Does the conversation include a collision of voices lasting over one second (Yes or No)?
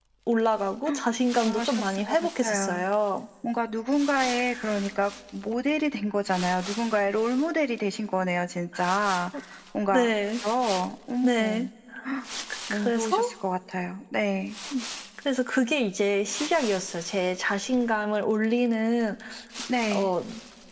Yes